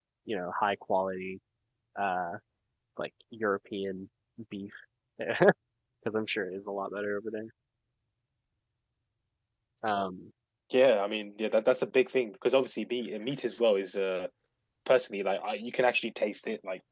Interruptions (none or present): none